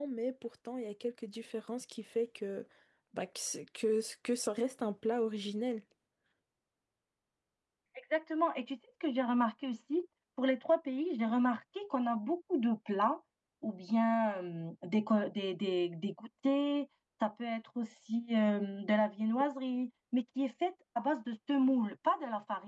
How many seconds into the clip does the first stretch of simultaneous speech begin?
none

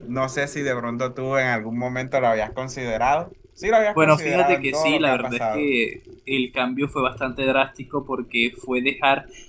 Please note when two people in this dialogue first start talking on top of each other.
4.0 s

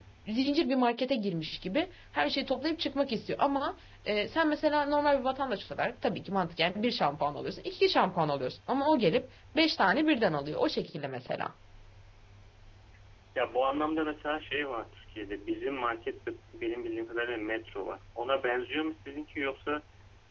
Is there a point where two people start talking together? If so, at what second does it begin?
none

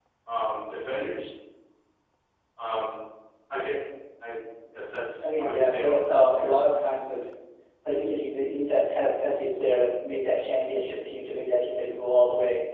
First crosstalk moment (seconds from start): 5.2 s

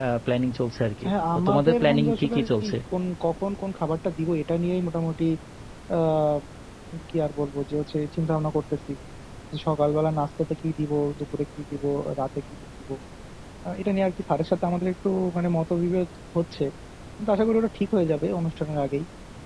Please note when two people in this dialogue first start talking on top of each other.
1.1 s

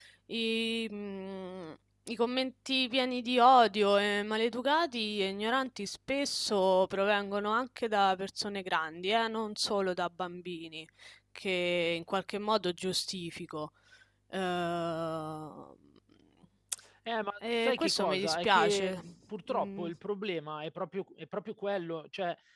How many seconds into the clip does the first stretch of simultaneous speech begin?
17.6 s

